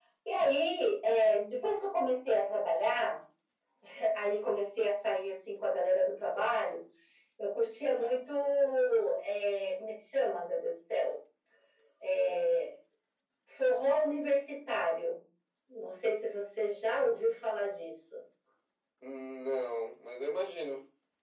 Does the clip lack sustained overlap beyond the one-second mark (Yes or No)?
Yes